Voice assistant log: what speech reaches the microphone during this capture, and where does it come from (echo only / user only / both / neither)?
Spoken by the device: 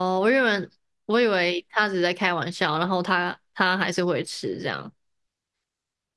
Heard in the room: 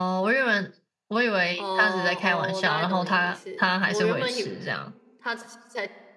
both